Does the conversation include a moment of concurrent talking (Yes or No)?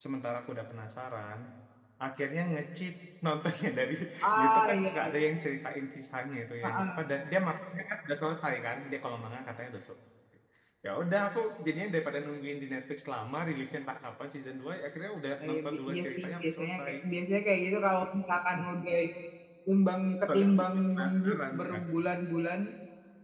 Yes